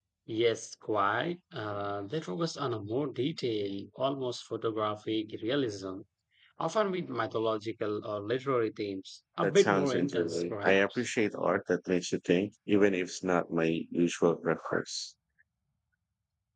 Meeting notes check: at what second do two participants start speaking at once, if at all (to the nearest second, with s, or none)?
9 s